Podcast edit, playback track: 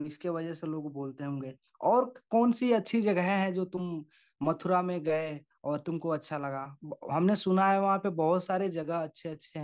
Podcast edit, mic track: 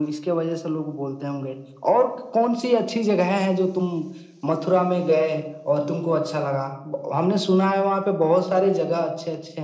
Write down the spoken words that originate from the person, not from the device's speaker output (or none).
none